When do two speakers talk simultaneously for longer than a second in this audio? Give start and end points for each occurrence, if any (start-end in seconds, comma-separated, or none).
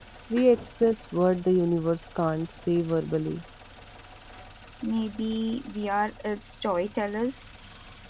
none